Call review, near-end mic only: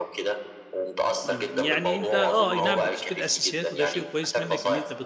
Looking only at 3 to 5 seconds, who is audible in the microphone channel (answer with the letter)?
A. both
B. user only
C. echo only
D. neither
A